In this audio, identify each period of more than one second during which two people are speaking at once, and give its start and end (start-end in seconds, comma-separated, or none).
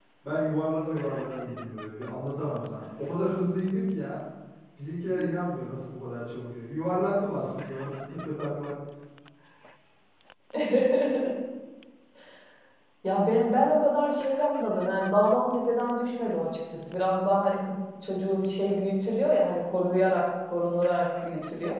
none